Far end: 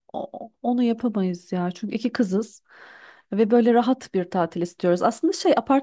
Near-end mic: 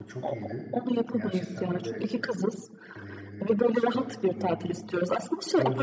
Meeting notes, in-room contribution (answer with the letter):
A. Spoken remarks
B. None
A